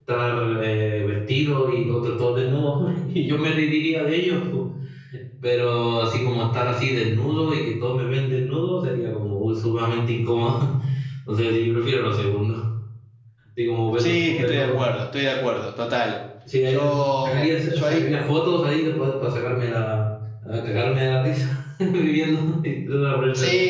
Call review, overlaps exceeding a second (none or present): present